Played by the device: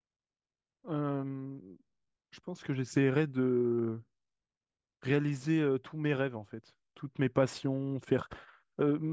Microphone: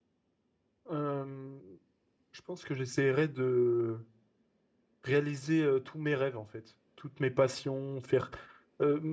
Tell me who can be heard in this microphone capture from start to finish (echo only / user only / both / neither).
echo only